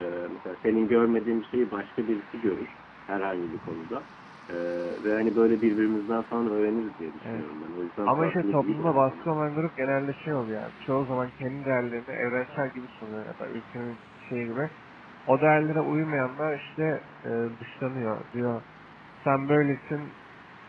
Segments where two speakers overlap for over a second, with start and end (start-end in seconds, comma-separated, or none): 8.1-9.3